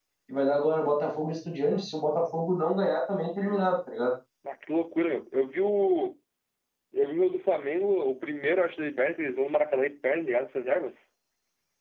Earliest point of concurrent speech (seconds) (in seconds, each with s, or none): none